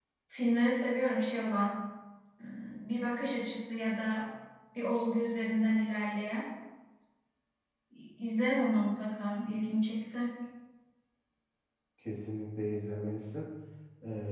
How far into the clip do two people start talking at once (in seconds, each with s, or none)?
none